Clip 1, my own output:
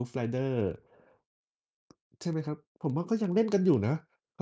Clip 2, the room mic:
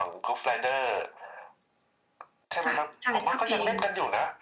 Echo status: present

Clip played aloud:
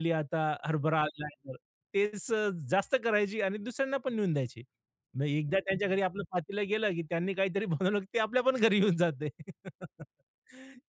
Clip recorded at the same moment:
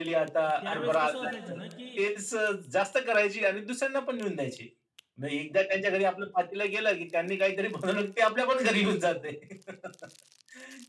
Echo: present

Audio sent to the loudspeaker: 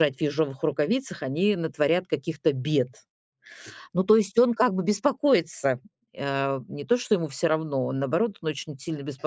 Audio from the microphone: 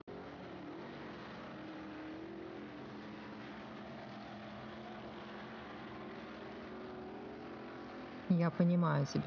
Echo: none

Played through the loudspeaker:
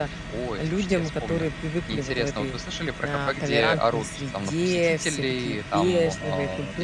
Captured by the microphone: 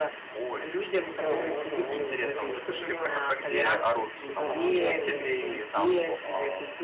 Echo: present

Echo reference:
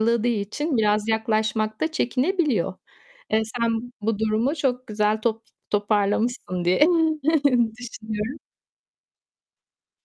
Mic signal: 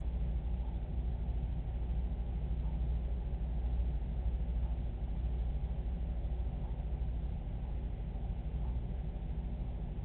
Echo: none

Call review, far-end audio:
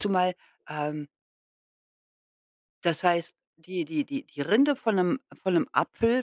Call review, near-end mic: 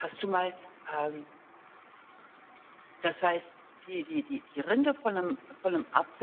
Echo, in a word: present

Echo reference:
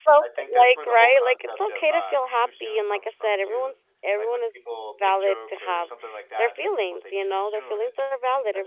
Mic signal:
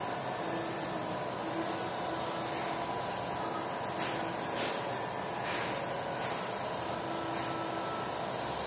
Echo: none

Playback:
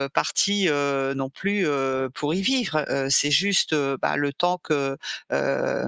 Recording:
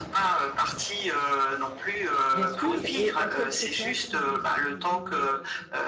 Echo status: present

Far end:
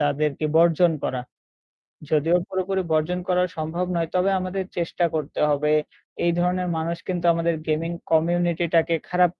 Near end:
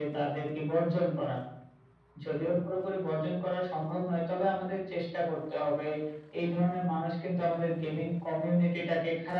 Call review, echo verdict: present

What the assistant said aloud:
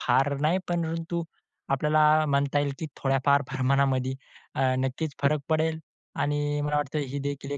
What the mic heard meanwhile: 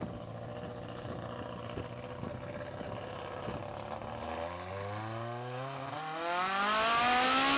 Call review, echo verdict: none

